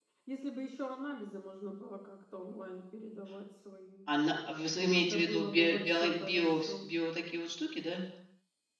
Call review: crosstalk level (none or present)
present